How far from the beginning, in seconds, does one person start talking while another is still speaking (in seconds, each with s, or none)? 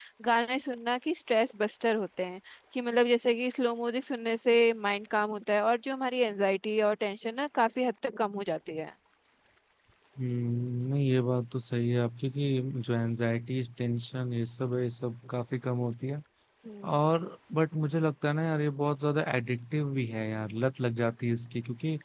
none